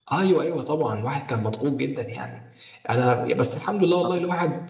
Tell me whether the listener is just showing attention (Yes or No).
Yes